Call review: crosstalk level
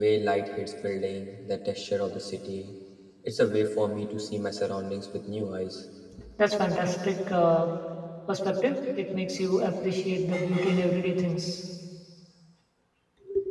none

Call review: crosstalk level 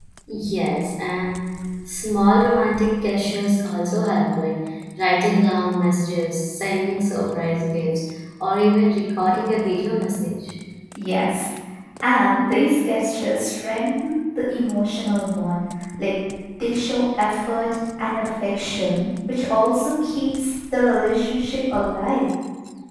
none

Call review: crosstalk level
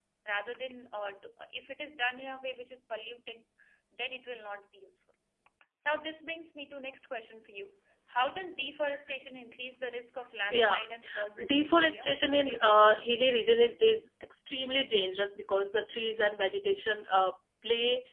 present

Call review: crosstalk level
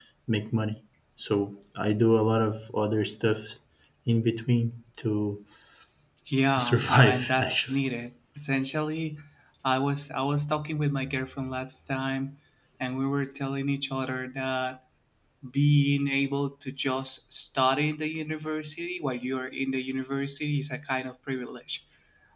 present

